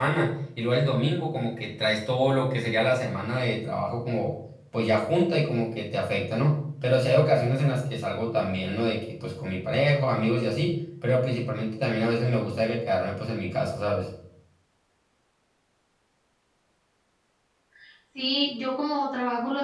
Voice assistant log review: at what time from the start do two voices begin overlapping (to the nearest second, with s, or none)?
none